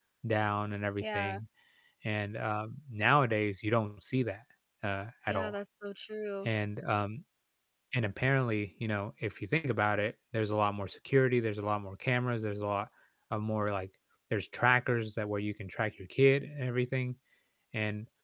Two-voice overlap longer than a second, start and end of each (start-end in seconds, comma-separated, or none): none